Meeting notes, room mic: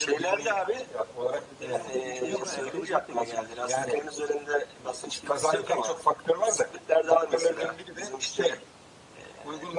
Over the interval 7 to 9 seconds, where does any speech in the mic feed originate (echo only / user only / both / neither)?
echo only